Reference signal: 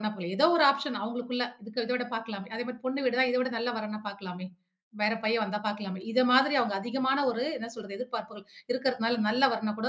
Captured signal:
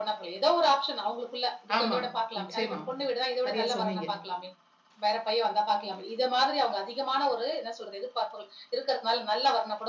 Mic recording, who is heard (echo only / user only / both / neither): both